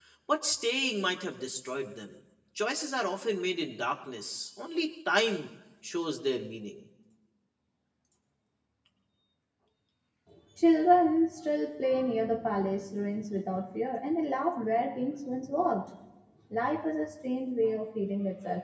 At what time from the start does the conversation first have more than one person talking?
none

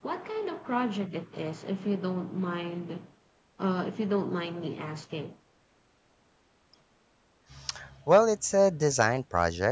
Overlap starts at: none

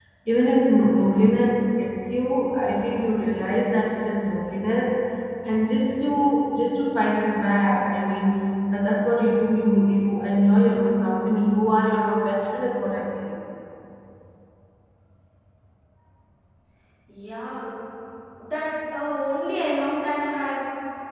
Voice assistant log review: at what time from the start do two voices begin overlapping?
none

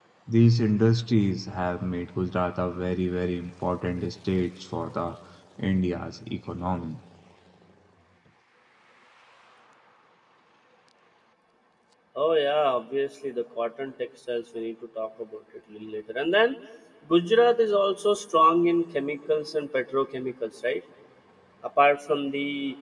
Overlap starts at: none

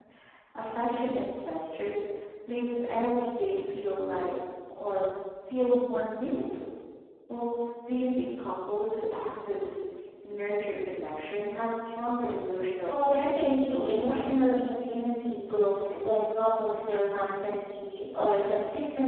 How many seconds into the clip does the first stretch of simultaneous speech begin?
12.9 s

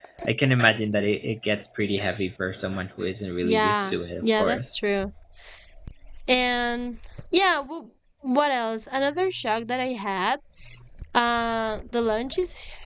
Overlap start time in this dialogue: 3.4 s

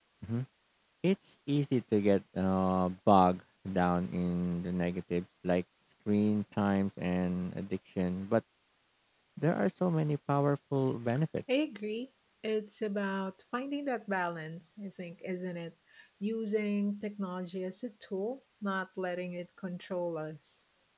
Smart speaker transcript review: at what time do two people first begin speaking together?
none

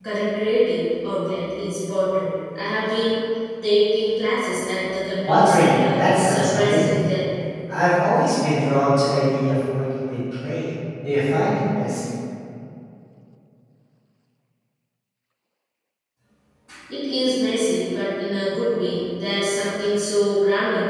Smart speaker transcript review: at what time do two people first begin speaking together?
5.3 s

